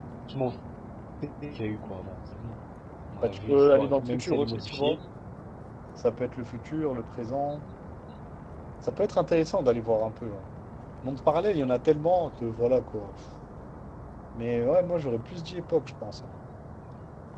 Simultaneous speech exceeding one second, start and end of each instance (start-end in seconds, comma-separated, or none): 3.2-5.0